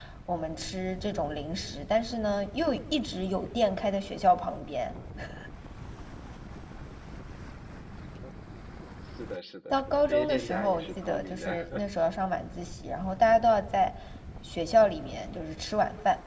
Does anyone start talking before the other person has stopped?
Yes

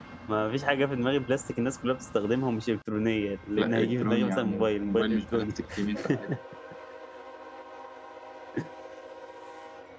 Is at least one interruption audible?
Yes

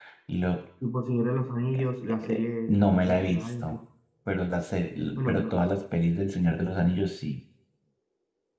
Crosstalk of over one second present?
Yes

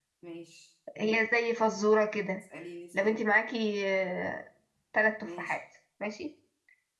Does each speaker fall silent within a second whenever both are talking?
Yes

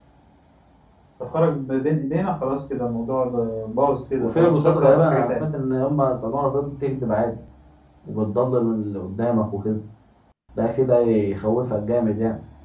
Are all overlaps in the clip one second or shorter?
No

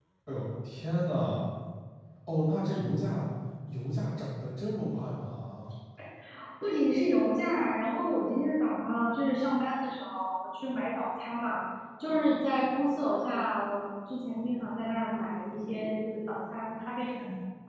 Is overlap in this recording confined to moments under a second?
Yes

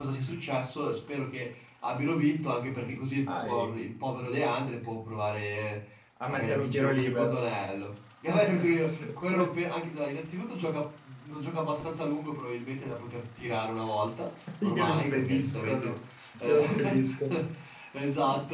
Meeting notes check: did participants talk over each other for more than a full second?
Yes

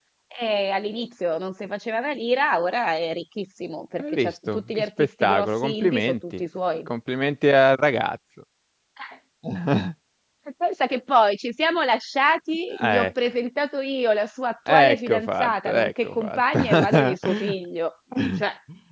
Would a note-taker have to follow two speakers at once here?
Yes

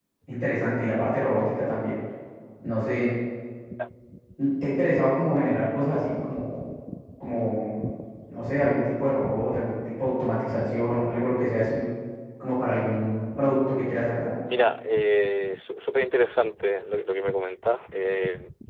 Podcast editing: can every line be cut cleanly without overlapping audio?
Yes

